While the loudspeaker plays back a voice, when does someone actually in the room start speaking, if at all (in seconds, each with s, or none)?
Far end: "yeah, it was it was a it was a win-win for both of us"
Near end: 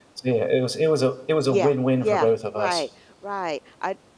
1.5 s